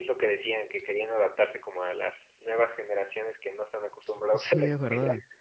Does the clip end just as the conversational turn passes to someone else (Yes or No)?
Yes